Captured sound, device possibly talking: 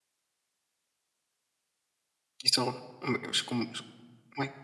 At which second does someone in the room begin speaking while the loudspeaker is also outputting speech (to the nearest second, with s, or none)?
2 s